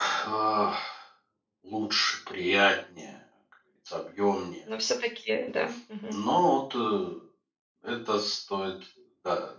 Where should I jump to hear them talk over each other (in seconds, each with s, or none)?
none